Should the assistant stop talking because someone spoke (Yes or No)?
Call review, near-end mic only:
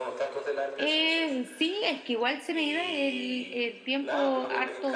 Yes